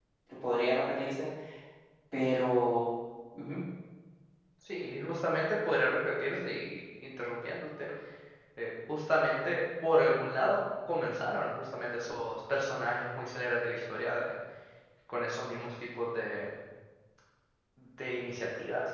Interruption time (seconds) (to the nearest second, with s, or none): none